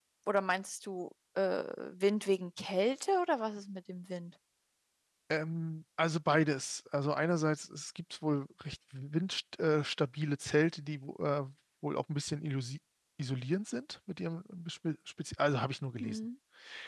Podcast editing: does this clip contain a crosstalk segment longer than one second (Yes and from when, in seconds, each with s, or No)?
No